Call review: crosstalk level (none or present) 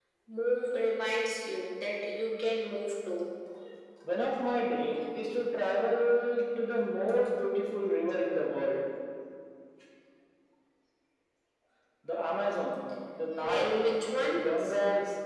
present